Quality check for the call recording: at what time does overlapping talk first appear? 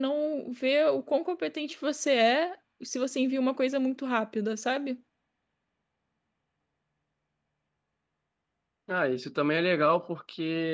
none

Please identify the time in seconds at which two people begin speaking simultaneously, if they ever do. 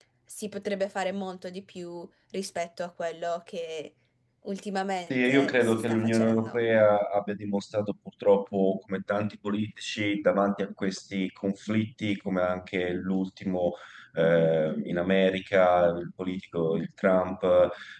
5.1 s

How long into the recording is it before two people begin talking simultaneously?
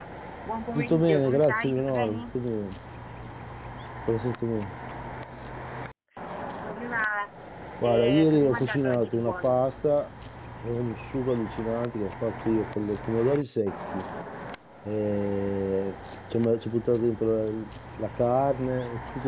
0.7 s

